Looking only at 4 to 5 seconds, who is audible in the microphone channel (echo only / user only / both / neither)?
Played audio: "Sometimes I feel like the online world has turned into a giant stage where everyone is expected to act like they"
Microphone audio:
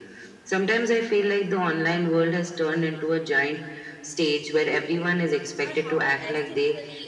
echo only